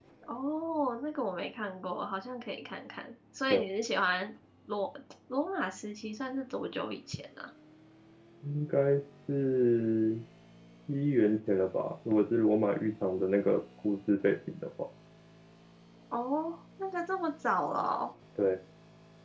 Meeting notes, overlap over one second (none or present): none